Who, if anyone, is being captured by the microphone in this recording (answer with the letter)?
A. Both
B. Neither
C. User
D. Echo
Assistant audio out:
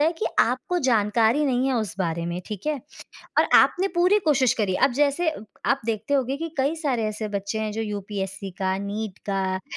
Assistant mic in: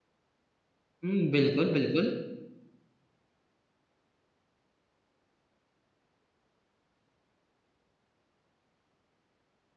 C